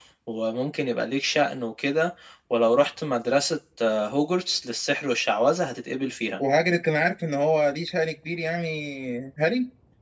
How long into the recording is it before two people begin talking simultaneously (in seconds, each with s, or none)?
none